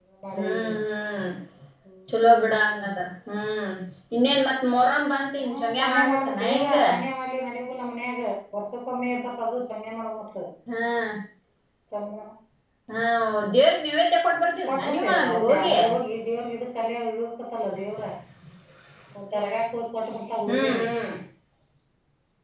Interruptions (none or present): present